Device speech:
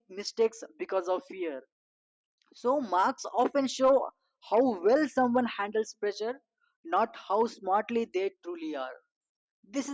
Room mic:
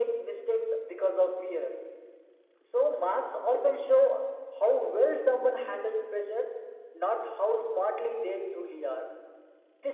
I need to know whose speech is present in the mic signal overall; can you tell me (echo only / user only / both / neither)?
echo only